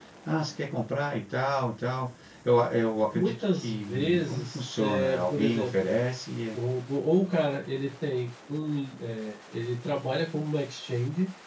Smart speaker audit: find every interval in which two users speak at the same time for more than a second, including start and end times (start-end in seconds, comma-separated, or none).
3.1-5.9